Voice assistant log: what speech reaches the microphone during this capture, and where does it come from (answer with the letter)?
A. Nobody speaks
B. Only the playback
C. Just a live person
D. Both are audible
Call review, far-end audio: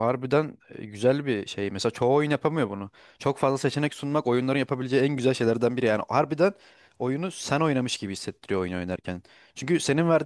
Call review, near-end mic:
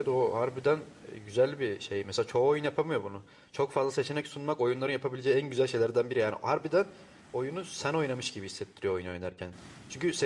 B